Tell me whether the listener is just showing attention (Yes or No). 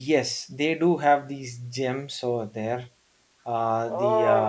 No